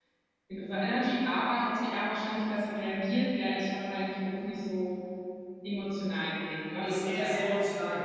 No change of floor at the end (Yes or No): No